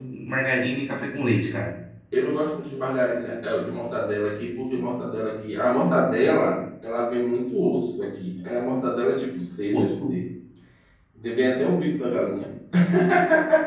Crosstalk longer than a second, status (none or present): none